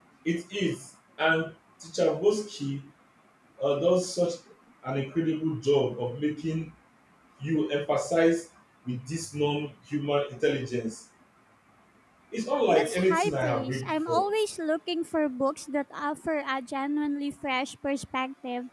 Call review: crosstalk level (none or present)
present